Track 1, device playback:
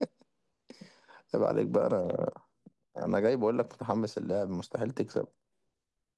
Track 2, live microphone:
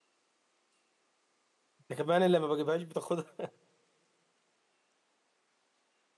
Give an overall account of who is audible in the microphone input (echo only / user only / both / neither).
user only